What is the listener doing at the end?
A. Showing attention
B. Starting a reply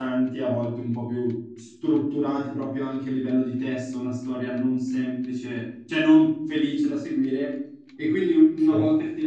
A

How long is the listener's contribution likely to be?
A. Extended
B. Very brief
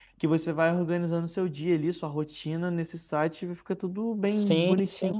A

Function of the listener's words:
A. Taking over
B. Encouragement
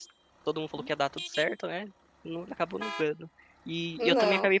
B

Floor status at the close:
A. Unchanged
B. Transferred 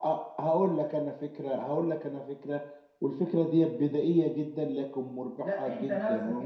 B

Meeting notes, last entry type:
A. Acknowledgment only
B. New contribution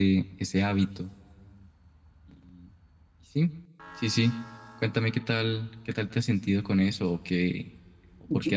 A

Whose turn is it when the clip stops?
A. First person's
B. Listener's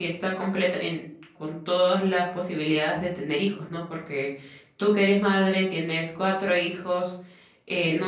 A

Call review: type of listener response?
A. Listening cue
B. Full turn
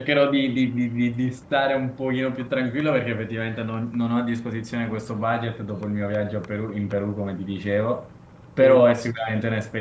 A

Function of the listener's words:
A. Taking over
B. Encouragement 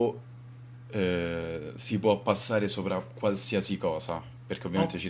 B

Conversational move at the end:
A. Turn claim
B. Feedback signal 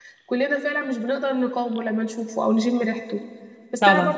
B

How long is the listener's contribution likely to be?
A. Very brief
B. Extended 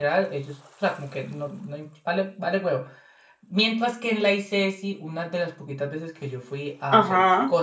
A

